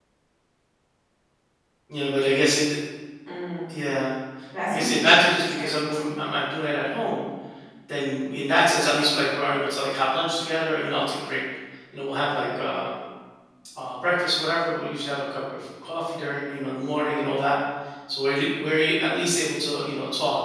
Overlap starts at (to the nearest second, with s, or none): 5 s